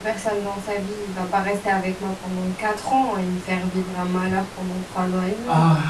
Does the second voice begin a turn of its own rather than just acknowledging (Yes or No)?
Yes